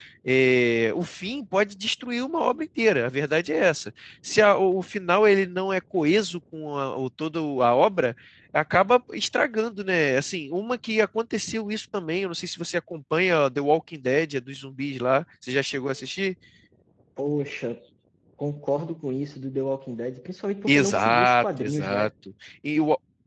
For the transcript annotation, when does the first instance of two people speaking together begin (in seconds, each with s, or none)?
20.7 s